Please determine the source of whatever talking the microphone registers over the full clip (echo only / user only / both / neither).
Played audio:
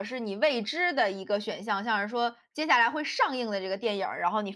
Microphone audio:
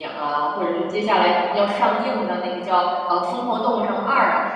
user only